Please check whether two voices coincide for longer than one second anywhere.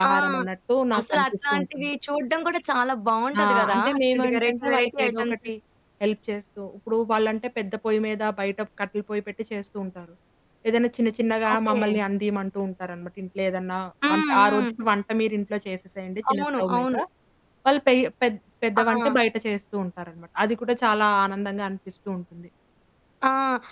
Yes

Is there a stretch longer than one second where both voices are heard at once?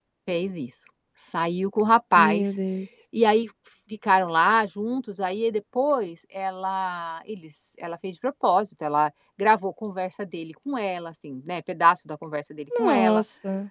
No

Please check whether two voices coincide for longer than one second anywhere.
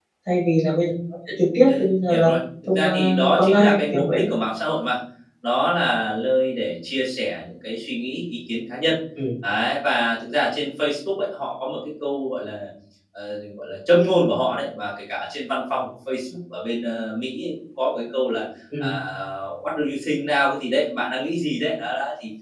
Yes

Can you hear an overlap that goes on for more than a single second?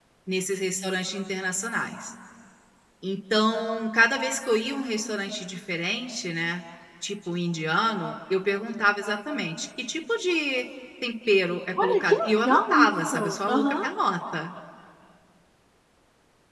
Yes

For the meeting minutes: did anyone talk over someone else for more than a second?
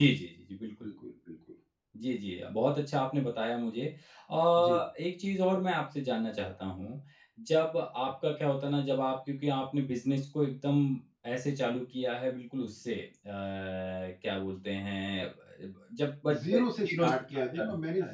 Yes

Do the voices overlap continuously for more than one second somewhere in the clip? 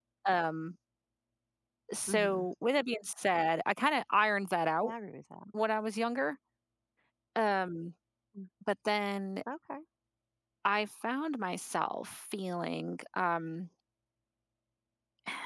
No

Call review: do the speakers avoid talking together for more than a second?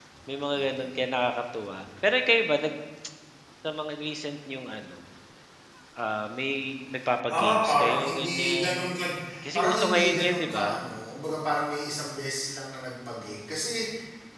No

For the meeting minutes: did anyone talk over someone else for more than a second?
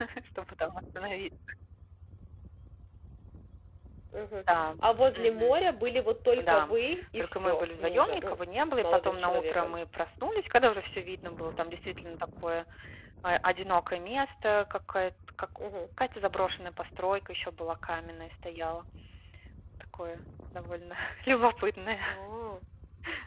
Yes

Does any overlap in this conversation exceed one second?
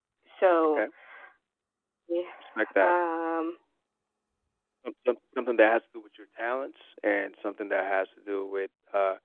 No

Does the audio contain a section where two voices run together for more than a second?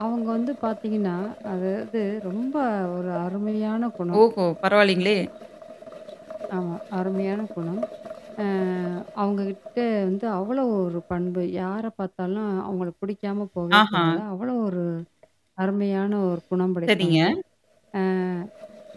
No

